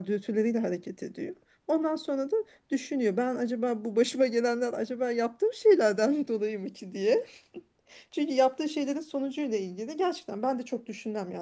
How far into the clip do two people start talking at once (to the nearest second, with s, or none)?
none